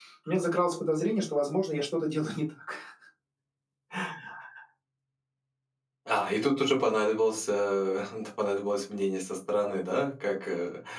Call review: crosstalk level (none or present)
none